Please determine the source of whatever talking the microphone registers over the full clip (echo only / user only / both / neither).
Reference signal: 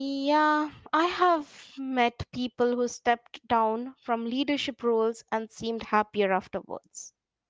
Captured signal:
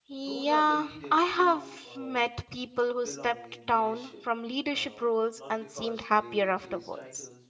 both